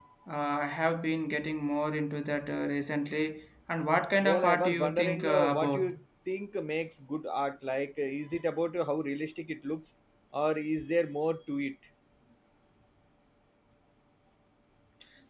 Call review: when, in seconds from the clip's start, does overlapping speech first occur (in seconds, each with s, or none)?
4.2 s